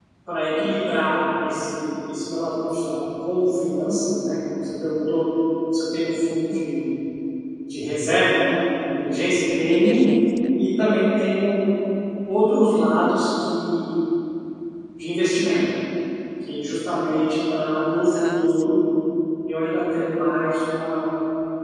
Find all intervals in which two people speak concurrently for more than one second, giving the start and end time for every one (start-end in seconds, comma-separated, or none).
none